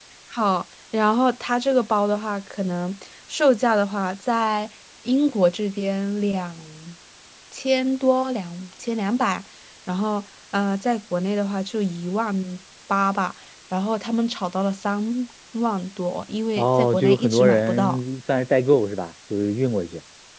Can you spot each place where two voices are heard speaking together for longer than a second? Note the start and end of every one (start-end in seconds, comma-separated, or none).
16.6-18.0